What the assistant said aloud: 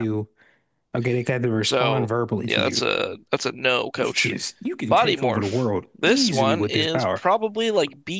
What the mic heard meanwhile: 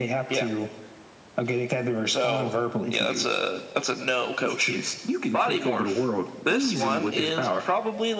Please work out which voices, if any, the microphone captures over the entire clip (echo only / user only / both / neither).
echo only